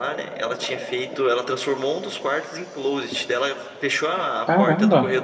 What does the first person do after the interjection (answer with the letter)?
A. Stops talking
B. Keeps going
B